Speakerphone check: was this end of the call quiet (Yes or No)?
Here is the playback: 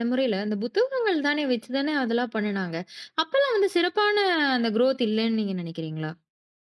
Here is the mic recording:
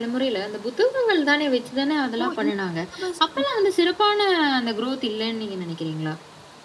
No